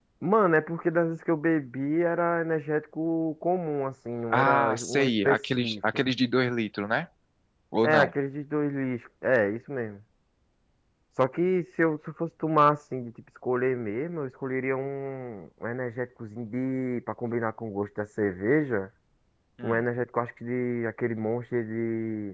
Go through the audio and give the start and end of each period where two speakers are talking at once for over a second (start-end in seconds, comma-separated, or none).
4.3-5.8